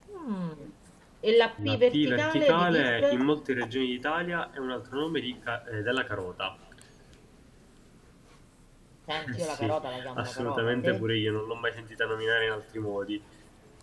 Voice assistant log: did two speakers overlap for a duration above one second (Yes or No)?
Yes